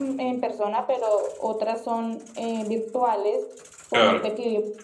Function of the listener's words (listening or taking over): listening